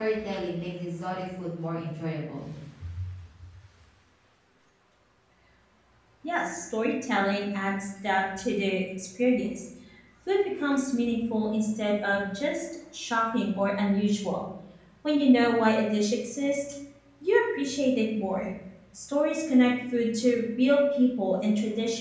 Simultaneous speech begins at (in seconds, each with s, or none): none